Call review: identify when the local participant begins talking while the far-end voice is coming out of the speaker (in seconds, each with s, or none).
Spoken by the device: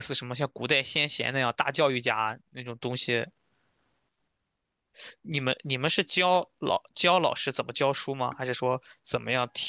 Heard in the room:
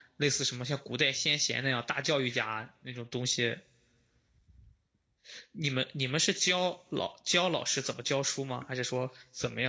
none